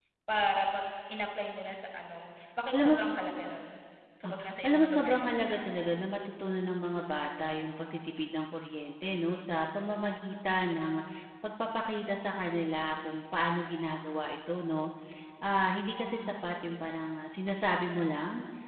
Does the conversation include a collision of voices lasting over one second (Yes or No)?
Yes